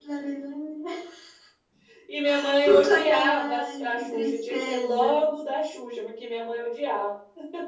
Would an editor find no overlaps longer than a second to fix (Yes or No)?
No